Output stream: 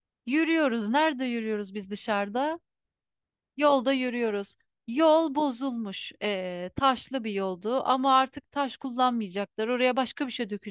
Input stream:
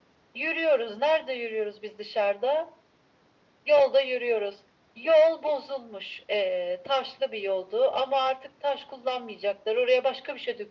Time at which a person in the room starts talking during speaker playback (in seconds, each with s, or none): none